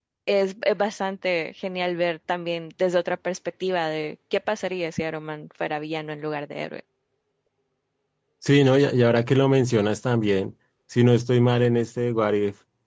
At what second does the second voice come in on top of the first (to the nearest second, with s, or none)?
none